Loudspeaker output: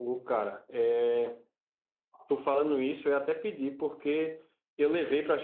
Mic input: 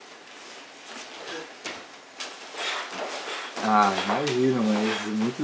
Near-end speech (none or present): present